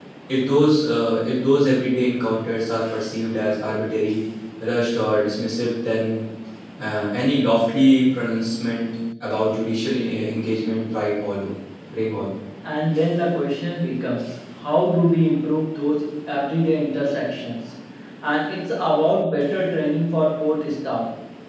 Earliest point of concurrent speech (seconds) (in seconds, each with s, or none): none